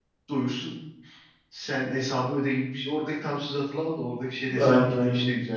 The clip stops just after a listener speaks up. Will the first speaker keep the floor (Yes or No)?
No